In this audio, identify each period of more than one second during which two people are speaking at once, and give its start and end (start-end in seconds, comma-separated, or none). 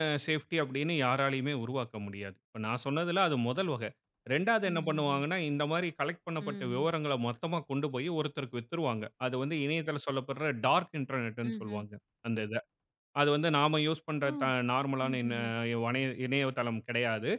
none